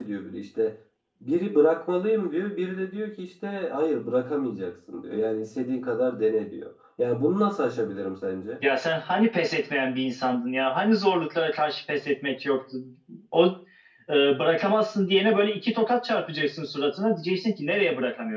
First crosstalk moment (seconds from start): none

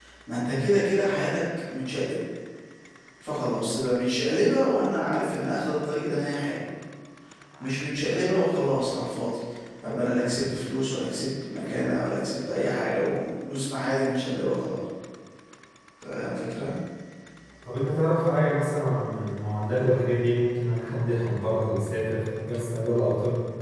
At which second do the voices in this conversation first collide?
none

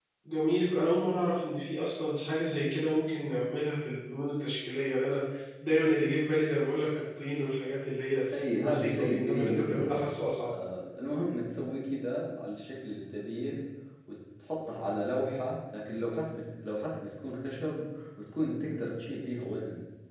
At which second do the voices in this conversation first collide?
8 s

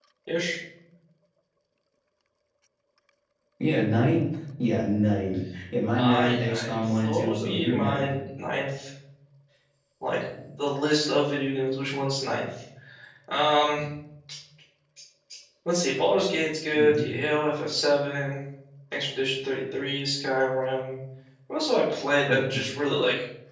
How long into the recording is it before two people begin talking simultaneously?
6 s

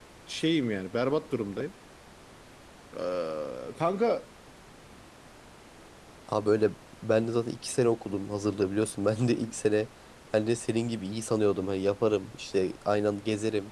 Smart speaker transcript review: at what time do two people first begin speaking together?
none

